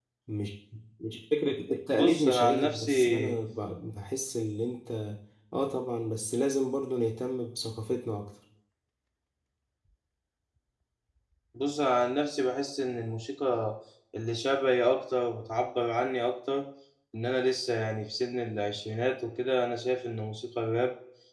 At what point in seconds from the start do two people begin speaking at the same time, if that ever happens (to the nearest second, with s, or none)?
2 s